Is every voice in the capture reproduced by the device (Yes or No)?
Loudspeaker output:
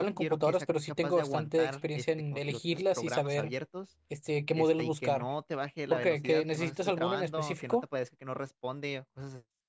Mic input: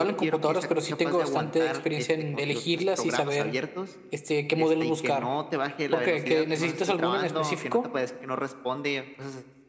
Yes